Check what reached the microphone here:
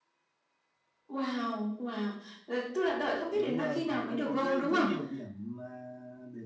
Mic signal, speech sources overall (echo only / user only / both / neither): both